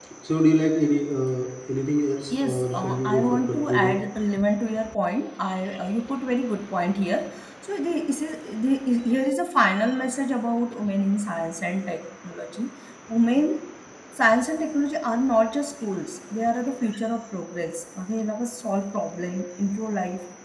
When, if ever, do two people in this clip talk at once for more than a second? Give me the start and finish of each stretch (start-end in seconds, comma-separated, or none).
2.3-4.0